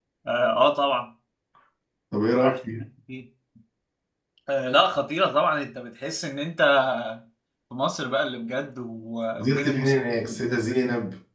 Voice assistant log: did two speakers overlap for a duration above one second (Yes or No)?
Yes